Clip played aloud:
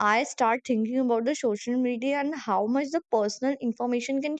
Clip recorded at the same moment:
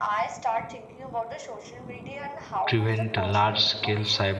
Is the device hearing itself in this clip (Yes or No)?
Yes